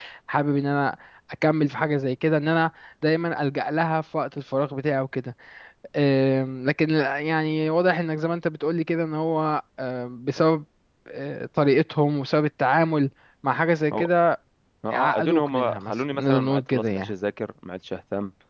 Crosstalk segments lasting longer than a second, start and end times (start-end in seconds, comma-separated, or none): 14.9-17.1